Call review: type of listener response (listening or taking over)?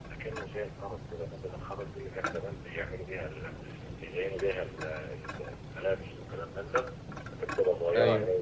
listening